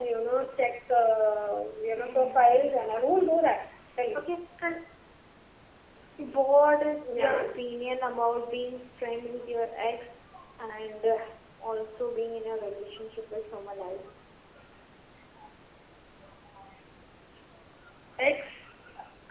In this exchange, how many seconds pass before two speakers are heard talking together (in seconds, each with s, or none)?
2.0 s